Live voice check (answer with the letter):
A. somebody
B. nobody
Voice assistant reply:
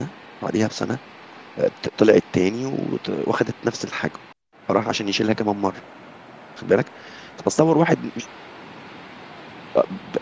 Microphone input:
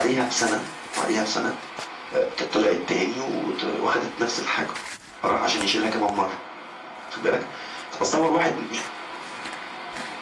B